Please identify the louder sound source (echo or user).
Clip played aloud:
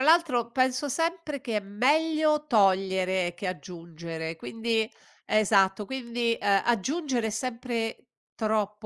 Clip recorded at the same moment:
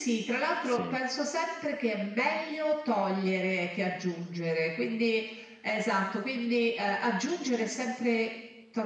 echo